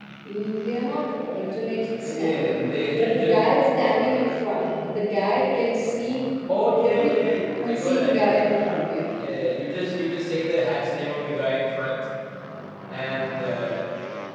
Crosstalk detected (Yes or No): Yes